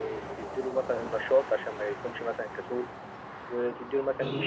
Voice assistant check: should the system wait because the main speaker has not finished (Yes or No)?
Yes